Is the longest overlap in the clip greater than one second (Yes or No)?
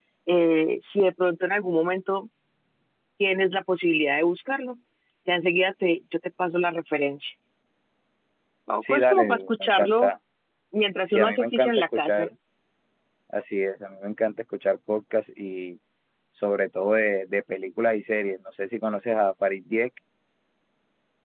Yes